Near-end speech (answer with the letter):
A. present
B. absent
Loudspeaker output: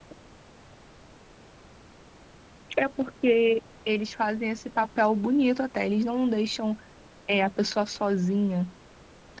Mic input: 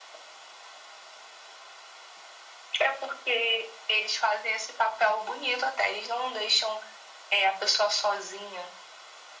B